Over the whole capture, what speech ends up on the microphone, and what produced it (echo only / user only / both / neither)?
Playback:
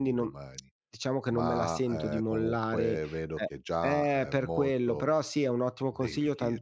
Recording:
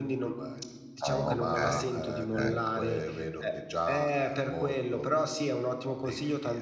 both